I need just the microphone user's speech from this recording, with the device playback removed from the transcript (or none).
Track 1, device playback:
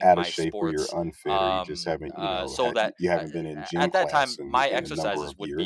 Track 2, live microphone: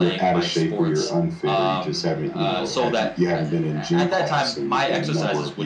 none